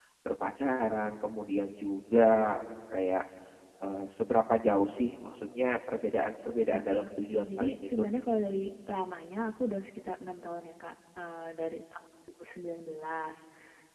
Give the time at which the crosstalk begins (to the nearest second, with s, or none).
7 s